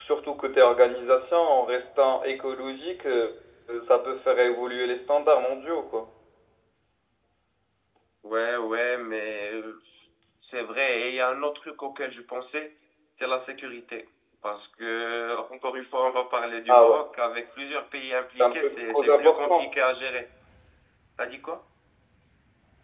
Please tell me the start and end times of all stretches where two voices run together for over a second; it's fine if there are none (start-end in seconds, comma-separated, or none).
18.4-19.6